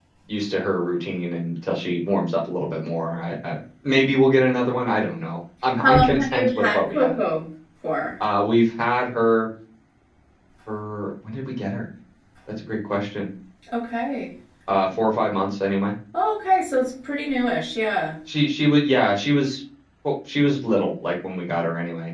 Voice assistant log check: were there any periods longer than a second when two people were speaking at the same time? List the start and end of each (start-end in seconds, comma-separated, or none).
5.8-7.2